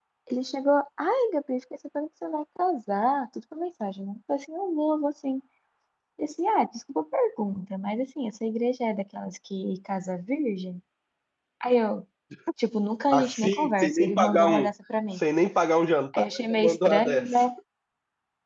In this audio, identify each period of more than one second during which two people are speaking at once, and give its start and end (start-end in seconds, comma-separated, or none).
13.1-14.7, 16.1-17.4